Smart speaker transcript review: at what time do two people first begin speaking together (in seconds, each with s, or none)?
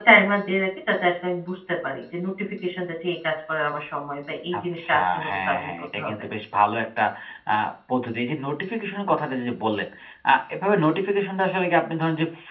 4.5 s